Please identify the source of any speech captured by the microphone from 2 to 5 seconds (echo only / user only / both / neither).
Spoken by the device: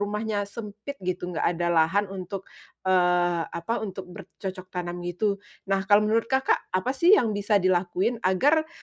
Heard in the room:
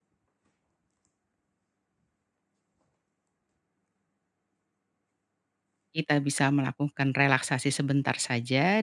neither